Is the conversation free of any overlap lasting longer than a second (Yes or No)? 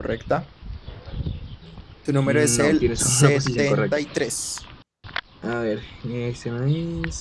No